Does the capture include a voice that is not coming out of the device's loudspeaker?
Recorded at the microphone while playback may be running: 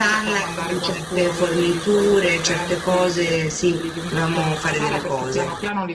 No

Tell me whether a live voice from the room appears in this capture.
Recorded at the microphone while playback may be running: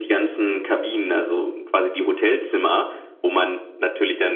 No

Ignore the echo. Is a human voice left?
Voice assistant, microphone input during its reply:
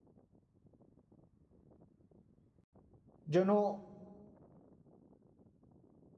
Yes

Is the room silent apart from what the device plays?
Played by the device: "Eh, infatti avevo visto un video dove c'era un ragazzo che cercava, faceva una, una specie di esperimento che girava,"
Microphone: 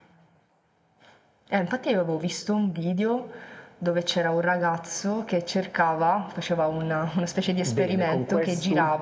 No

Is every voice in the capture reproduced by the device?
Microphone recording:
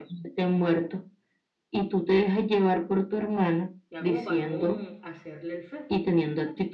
No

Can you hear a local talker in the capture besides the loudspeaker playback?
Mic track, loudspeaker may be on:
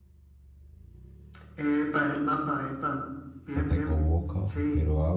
Yes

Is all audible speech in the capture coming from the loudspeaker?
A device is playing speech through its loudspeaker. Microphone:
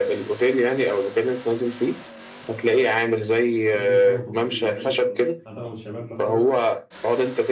No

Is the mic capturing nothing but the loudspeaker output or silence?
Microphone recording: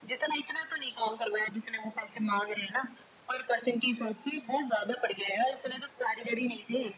Yes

